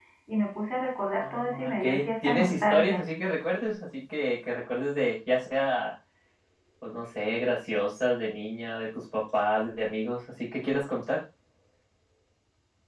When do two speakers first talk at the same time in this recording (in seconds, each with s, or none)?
1.2 s